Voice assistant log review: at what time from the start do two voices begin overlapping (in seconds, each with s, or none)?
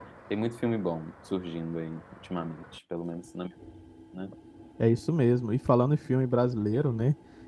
none